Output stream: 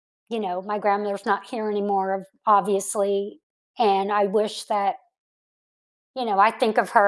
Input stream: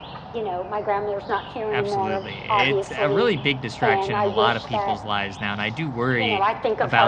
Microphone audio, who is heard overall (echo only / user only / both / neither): both